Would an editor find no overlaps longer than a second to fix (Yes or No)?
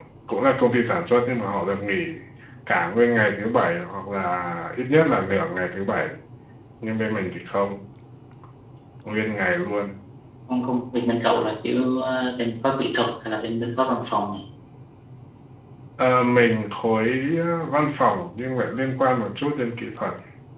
Yes